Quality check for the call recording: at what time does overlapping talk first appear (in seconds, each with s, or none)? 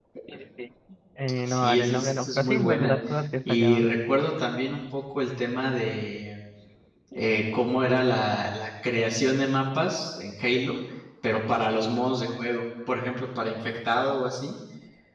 1.5 s